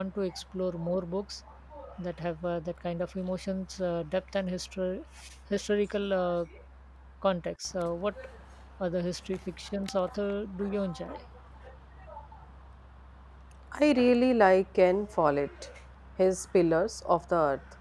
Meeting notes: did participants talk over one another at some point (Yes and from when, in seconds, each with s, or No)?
No